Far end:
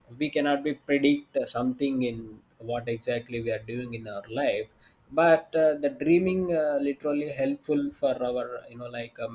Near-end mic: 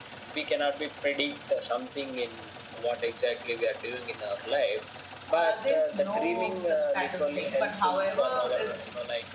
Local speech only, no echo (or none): Uh, there's no such kind of thing, but however, it's